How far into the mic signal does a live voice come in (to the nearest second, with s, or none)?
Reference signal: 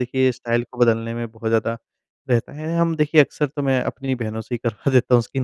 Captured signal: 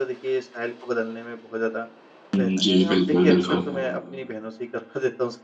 2 s